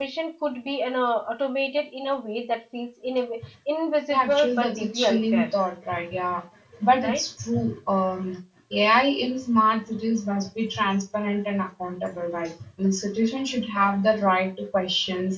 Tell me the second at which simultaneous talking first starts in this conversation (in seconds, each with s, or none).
4.1 s